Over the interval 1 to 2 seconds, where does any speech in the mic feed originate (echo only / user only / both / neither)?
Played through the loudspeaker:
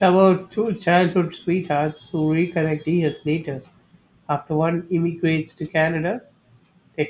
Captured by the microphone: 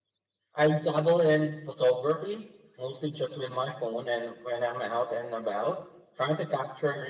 user only